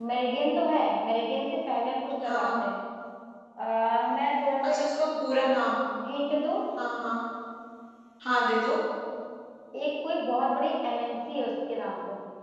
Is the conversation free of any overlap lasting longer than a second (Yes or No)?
Yes